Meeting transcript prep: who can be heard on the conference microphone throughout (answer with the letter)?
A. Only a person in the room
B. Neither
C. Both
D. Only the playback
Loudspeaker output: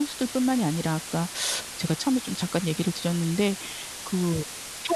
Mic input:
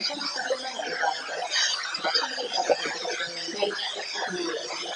D